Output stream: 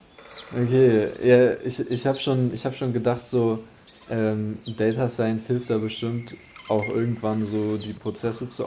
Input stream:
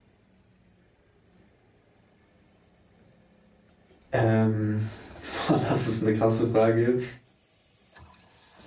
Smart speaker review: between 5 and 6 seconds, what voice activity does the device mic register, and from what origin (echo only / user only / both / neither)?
user only